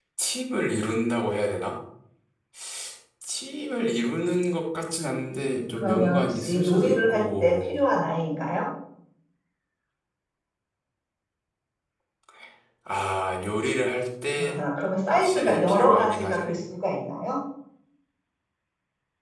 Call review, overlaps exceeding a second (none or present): present